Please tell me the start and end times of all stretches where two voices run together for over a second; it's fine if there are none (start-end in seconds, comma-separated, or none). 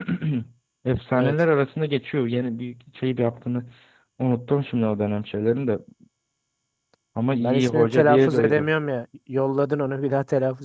7.4-8.7